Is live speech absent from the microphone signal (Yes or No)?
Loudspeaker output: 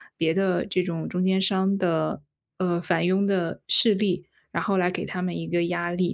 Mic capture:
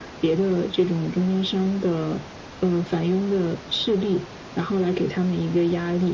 Yes